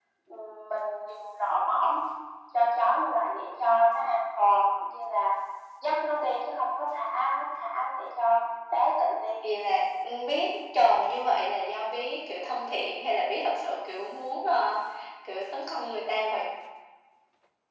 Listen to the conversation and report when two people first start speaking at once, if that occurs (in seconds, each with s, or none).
none